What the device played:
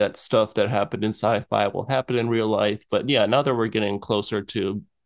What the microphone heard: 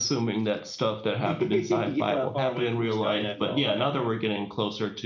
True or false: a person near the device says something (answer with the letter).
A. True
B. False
A